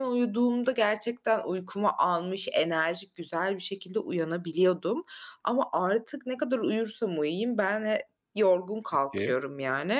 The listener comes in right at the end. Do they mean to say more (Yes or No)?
No